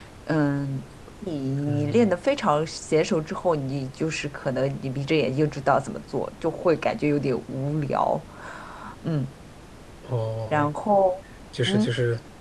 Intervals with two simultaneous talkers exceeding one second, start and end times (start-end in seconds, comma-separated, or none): none